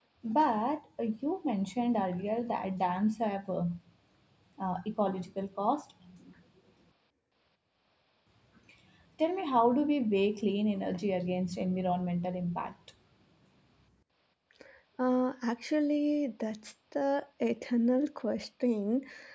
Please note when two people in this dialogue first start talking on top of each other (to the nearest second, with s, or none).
none